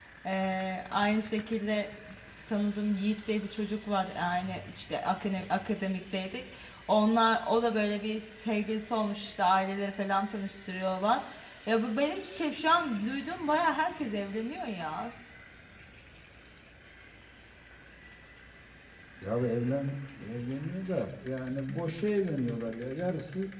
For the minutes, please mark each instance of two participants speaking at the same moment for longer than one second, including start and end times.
none

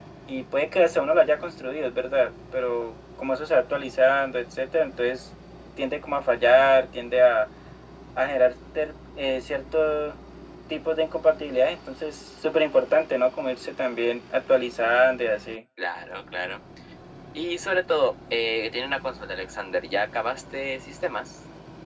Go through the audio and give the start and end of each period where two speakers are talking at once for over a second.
none

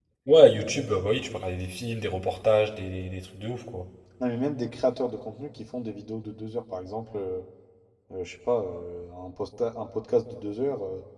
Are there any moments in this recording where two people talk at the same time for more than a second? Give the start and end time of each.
none

